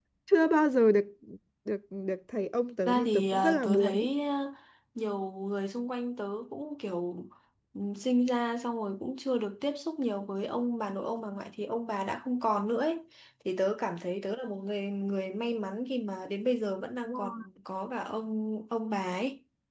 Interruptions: present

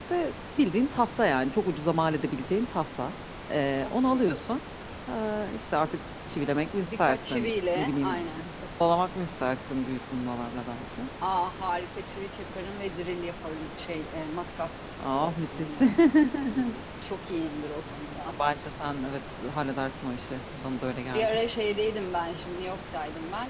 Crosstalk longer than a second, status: present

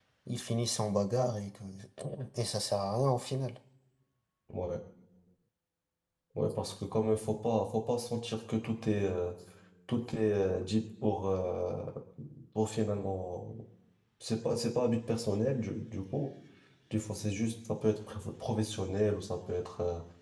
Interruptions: none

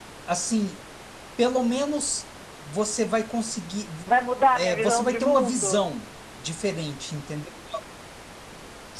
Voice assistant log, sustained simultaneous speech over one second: present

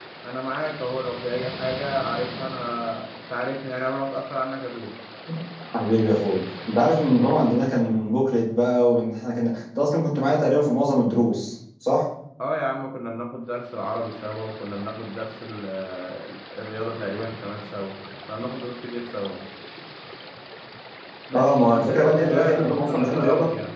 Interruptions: present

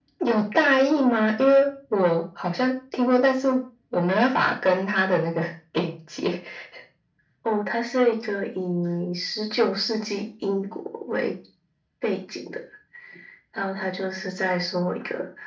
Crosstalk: none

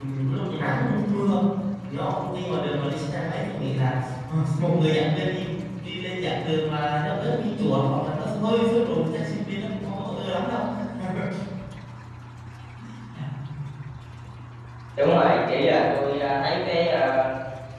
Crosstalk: none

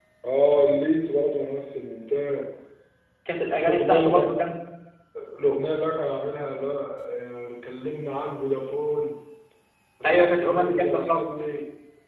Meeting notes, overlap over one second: present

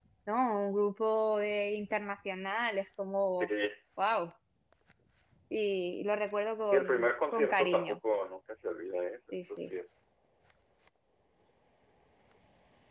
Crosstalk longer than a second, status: present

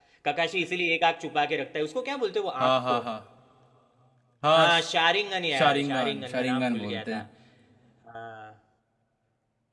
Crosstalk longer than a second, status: present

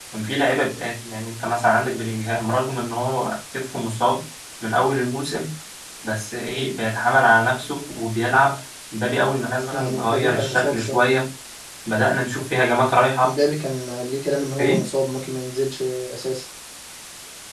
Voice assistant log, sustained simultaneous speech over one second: present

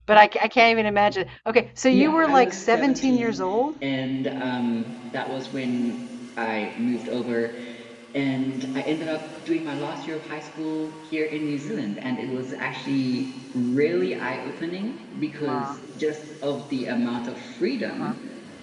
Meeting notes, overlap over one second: present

